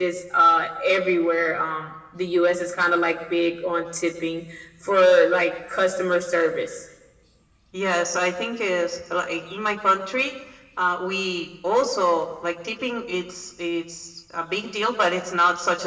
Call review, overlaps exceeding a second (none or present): none